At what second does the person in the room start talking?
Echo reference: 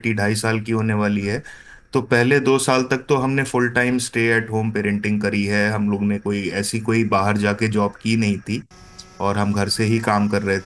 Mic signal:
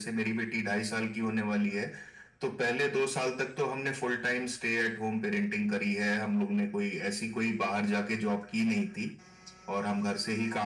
none

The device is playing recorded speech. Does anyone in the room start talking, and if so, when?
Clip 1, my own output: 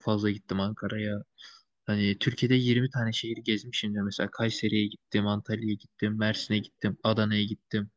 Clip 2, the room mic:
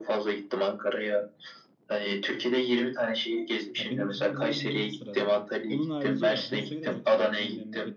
3.8 s

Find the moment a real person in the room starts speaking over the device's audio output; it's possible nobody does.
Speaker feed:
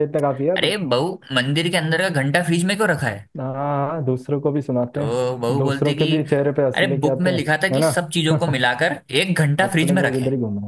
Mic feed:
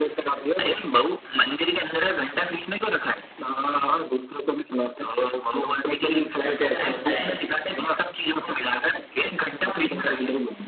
6.4 s

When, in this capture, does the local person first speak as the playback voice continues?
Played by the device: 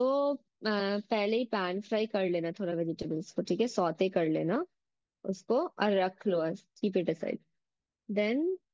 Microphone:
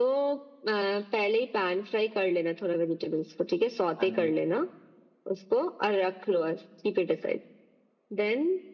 4.0 s

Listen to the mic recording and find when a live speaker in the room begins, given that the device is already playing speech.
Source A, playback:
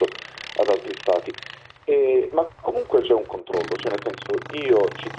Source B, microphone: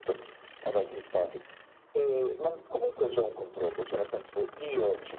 none

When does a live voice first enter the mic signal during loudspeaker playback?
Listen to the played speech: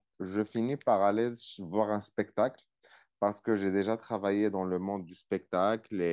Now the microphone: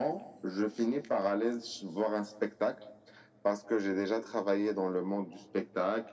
none

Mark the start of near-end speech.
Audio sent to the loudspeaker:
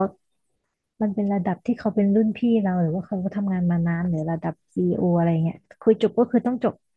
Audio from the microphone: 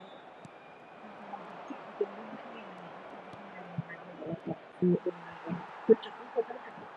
none

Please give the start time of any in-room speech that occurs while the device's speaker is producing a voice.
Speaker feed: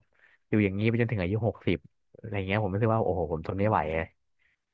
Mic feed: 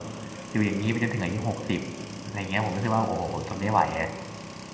none

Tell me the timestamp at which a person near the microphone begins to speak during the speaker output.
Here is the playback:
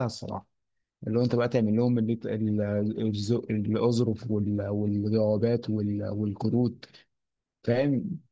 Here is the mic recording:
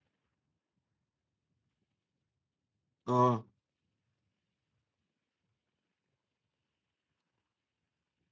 3.1 s

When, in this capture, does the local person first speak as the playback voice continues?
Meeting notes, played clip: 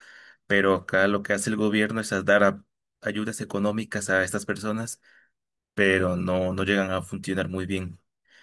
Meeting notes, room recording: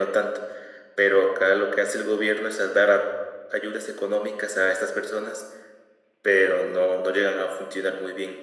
none

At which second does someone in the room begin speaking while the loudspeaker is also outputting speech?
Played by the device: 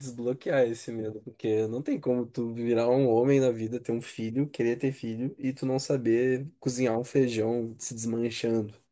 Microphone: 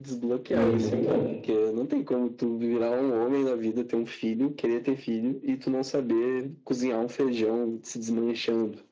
0.5 s

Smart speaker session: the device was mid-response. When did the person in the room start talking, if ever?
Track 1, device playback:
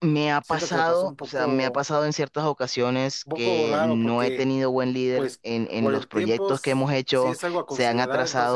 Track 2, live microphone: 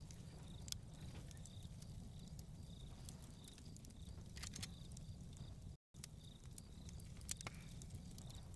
none

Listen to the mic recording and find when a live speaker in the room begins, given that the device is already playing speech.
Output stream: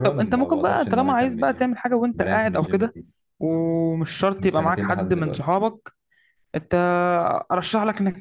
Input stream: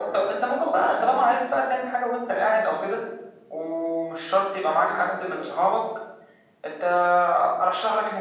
none

